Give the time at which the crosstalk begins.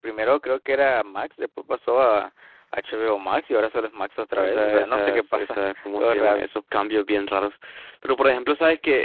4.4 s

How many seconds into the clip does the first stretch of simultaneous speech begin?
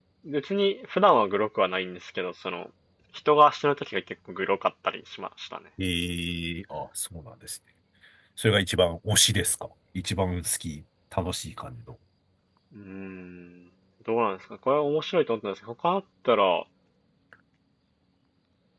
none

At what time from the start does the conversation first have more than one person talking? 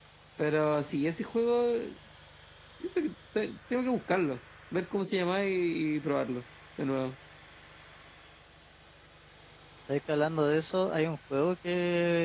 none

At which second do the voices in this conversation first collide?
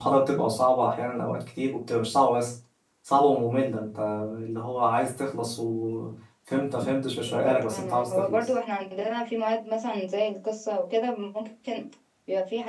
7.3 s

